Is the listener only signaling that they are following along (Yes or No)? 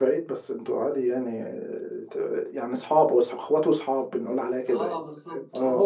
No